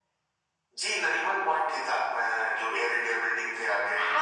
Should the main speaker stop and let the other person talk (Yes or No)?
Yes